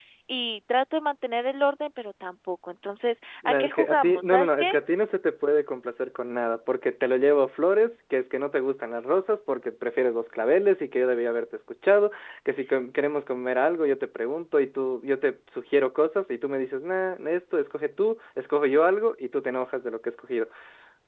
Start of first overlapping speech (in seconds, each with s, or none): 3.4 s